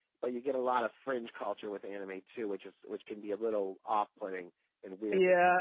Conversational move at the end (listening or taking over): taking over